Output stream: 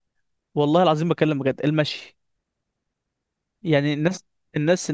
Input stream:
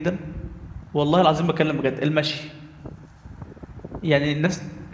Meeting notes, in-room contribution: none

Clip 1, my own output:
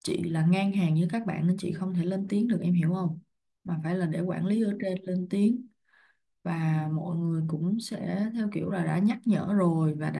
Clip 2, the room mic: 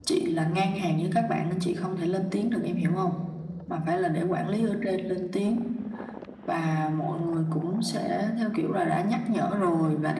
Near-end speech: none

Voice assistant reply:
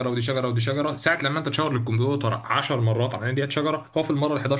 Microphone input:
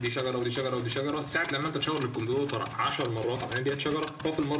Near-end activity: none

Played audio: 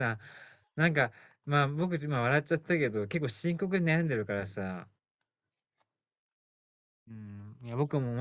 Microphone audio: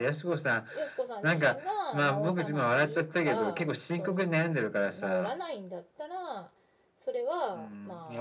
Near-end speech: present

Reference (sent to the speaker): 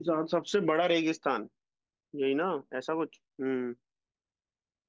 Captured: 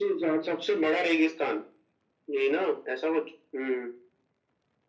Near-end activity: none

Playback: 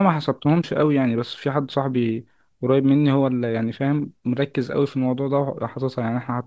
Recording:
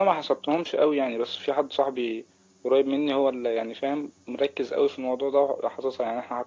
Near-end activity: none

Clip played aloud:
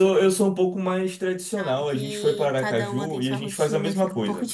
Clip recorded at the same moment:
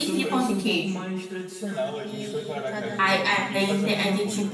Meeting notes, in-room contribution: present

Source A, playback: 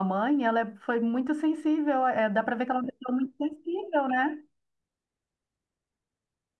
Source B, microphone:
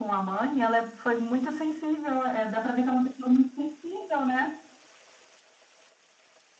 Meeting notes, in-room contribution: none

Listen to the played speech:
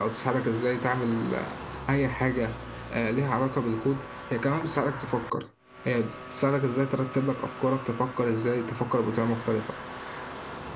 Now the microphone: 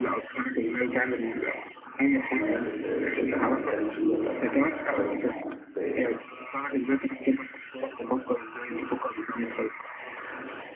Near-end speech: present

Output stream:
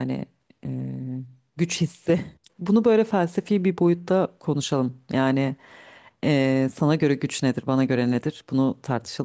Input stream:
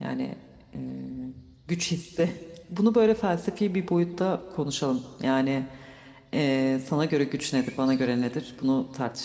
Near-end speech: none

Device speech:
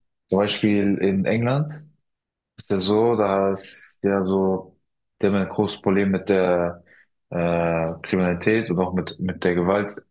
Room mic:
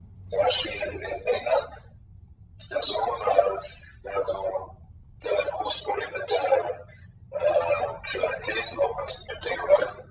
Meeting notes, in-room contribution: none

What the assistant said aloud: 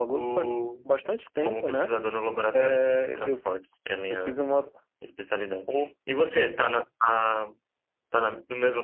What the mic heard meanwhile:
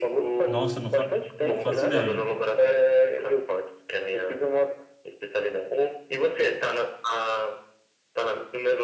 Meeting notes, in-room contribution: present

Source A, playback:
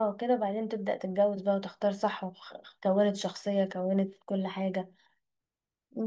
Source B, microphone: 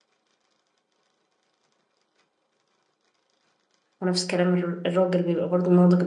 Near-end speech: present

